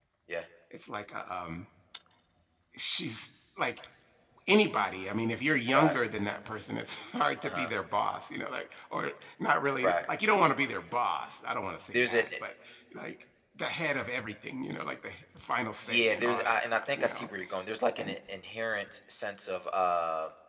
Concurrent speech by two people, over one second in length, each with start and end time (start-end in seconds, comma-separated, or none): 15.8-17.3